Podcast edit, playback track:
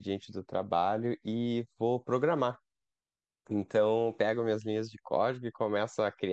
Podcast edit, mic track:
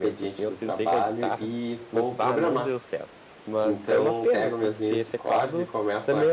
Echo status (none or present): present